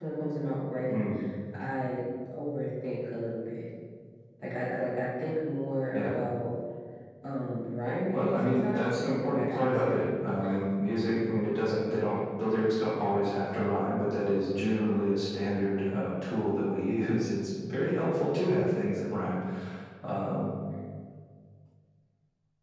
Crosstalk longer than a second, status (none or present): present